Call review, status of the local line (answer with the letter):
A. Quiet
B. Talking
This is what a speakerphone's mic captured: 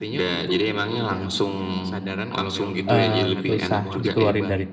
B